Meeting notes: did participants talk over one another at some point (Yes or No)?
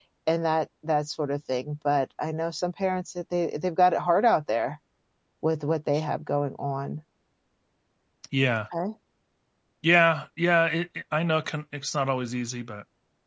No